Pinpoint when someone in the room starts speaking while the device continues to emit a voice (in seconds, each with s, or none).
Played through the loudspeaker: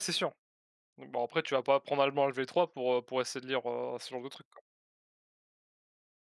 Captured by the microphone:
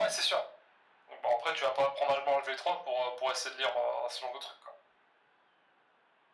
none